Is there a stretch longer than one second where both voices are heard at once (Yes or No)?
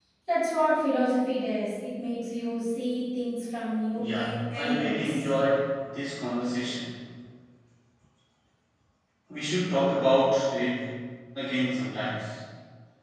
Yes